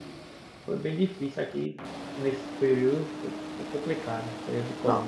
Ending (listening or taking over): taking over